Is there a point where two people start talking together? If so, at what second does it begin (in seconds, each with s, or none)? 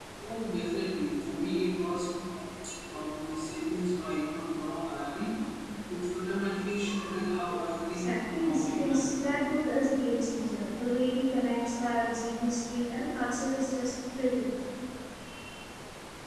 7.9 s